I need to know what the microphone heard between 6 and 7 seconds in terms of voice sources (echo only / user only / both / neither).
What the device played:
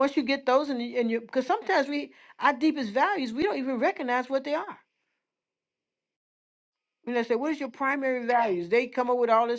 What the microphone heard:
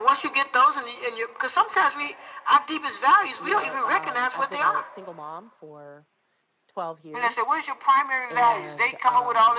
user only